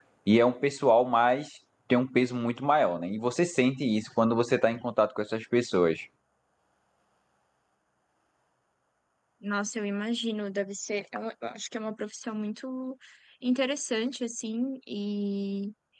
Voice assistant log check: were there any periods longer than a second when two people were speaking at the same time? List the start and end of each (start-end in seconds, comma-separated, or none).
none